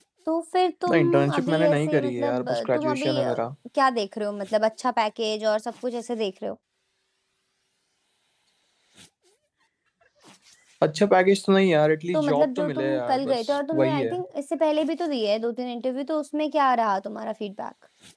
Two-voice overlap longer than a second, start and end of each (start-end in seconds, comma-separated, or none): 0.9-3.4, 12.1-14.1